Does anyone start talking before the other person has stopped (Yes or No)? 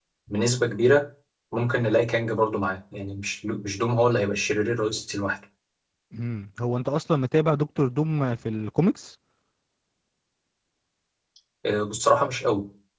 No